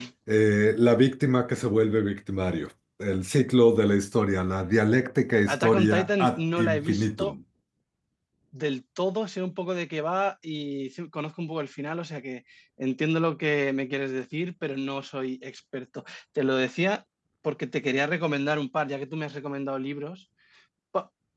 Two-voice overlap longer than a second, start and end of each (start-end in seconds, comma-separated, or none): 5.5-7.3